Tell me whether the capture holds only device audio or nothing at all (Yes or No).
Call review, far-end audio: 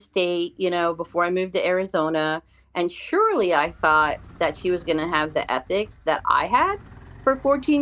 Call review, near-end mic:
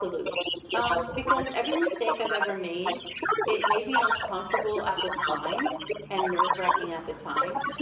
No